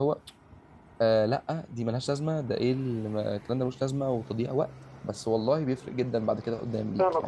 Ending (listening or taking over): taking over